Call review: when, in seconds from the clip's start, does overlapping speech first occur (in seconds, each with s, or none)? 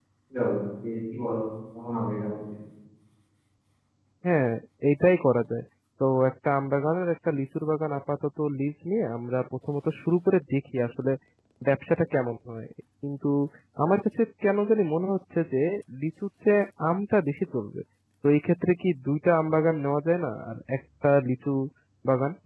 none